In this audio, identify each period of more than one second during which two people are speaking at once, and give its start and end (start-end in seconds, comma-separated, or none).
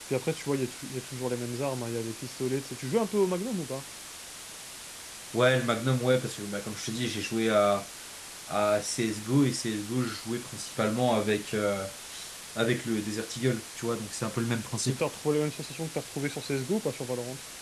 none